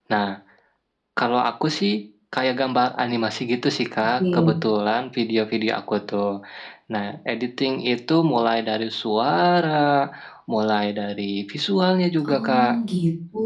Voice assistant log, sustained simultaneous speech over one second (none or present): none